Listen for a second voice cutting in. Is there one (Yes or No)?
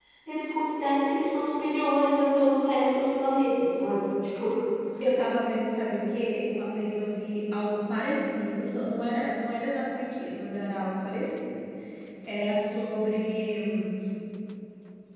No